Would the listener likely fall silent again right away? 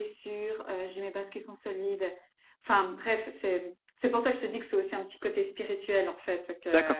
No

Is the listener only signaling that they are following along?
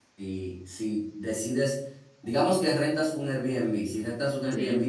Yes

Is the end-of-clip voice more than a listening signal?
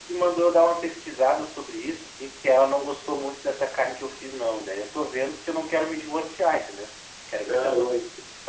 No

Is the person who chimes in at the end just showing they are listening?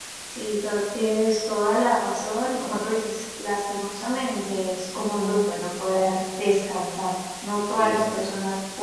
Yes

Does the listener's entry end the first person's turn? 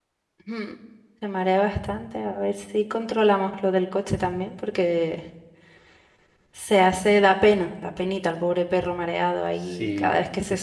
Yes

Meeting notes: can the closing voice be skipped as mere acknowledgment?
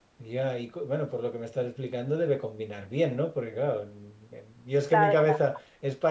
Yes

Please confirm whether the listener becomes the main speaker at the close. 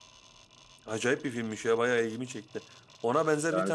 No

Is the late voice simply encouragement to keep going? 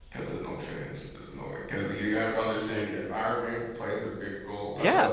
No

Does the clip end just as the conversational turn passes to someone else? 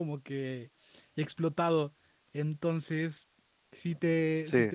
No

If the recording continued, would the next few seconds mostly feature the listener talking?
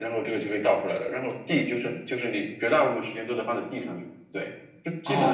Yes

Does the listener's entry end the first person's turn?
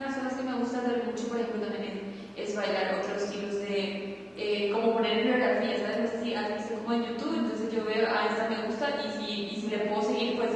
No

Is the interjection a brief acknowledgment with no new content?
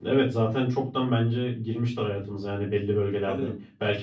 Yes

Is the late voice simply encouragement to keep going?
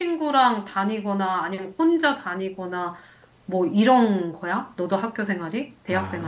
No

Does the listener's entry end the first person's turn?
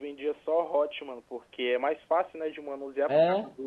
No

